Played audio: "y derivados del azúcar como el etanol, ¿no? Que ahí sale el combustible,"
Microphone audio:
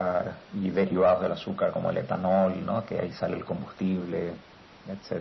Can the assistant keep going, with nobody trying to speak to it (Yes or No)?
Yes